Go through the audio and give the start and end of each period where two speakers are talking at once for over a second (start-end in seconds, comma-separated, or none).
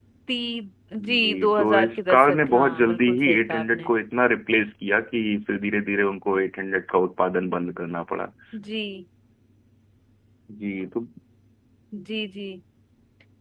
1.2-3.9